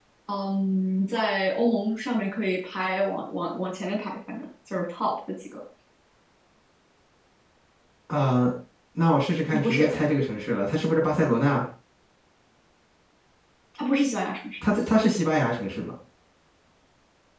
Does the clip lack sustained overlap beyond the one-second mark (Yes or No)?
Yes